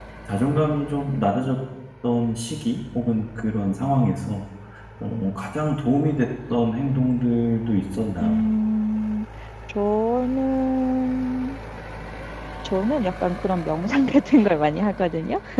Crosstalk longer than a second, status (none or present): none